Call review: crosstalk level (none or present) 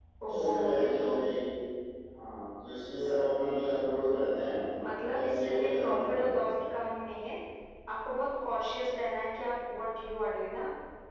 present